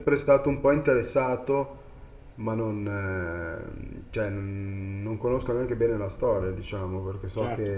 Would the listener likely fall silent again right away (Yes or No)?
No